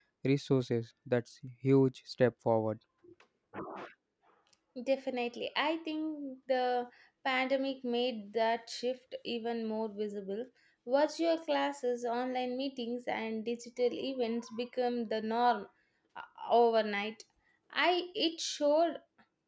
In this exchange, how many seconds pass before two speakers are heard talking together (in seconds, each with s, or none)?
none